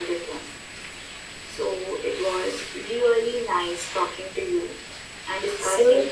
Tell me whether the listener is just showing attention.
Yes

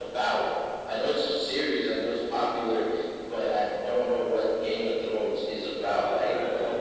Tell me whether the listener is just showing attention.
No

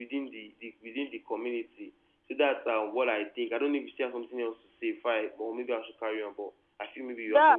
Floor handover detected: Yes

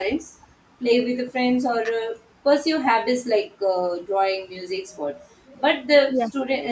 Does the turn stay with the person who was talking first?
Yes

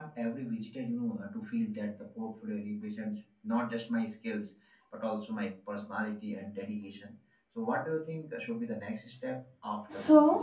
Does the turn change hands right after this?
Yes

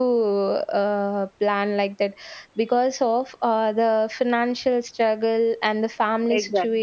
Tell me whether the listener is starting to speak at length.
No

